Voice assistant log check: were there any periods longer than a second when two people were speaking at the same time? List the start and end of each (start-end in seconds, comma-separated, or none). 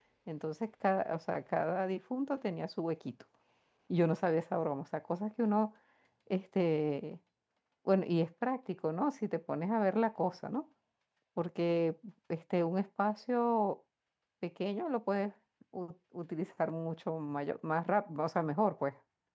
none